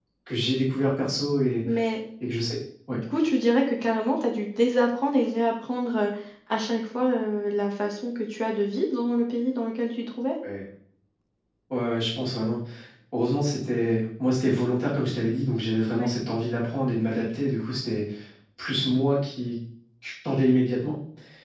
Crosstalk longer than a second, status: none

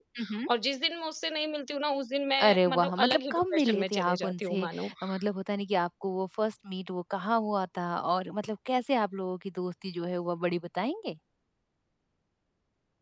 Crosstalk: present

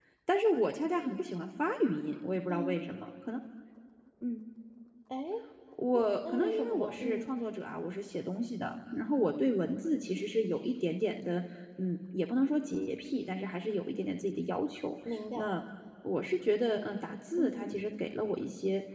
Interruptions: present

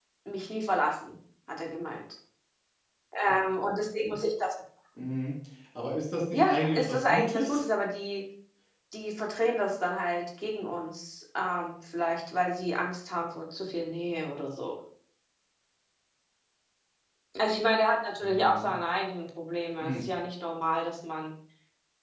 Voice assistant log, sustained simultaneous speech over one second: present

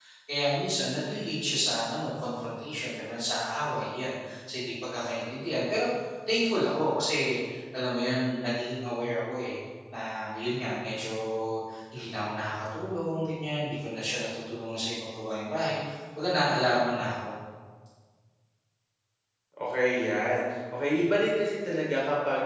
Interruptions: none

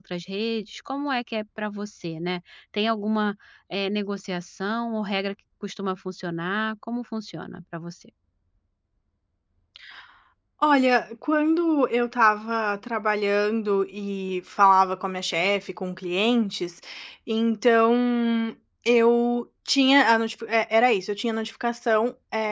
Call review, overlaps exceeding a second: none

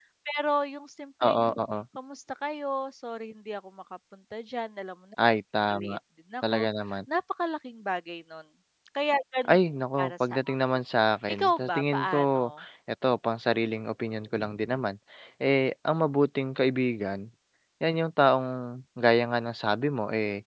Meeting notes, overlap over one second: present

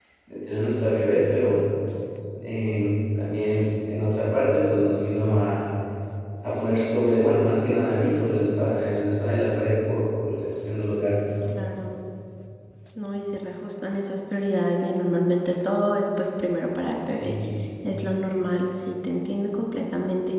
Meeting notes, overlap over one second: none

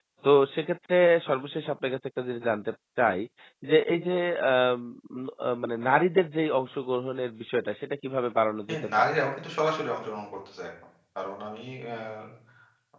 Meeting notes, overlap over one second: none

